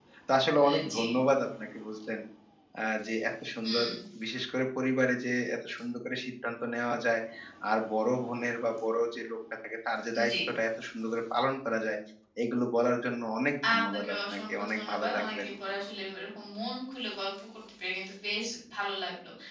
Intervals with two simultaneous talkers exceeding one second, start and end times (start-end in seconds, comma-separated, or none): 13.8-15.5